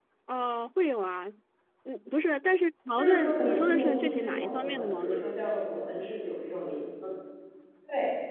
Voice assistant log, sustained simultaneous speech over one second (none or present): present